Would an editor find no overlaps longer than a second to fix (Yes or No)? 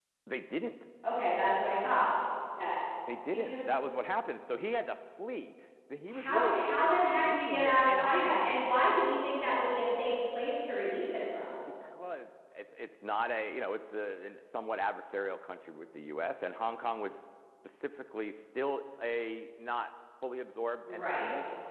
No